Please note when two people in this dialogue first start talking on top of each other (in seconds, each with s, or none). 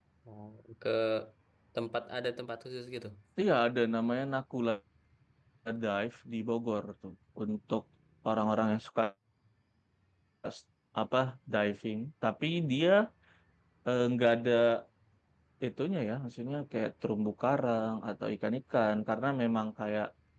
none